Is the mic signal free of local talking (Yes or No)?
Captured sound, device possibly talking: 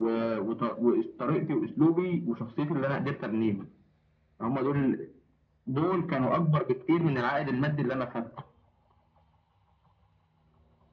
Yes